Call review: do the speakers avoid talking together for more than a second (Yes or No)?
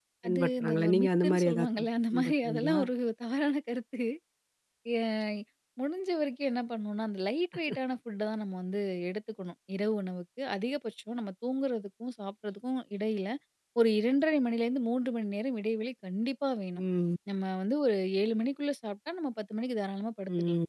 No